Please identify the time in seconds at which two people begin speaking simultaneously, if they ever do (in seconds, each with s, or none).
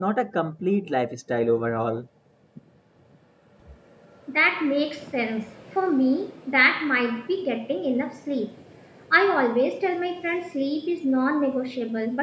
none